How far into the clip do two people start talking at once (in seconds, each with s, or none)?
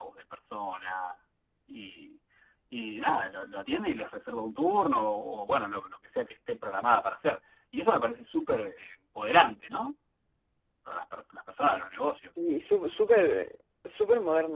none